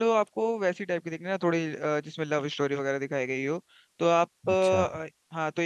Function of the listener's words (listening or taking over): listening